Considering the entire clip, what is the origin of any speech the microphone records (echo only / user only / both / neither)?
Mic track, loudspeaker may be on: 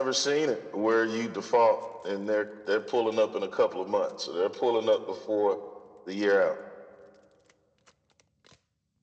echo only